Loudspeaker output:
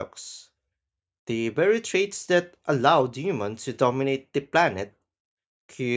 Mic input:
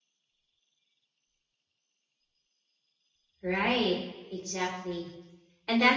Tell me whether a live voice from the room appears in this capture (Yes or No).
Yes